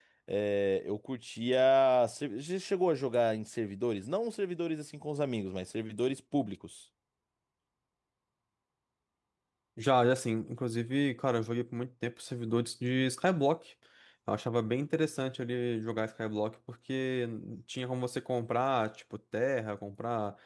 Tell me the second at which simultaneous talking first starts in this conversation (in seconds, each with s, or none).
none